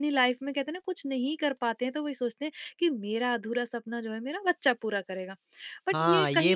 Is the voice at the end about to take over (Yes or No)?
Yes